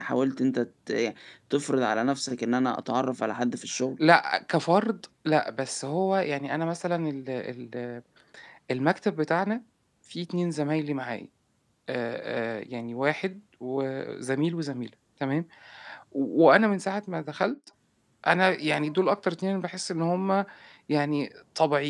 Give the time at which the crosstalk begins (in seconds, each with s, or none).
none